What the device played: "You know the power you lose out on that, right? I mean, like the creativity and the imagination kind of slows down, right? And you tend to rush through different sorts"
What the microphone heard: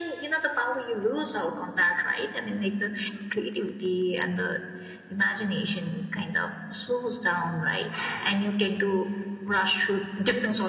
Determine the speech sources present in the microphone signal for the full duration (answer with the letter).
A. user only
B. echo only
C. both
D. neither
B